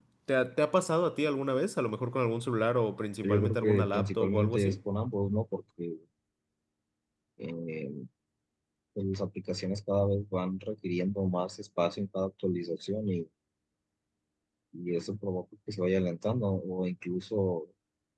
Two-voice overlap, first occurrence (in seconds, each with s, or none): 3.2 s